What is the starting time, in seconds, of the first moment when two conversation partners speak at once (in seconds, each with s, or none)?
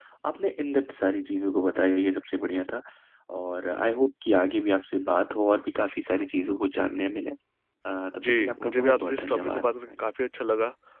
8.2 s